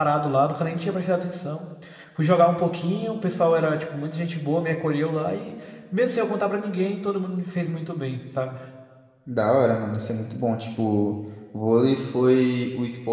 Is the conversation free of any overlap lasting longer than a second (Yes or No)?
Yes